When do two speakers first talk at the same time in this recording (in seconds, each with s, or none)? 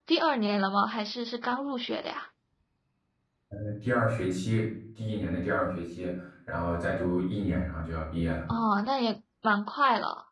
none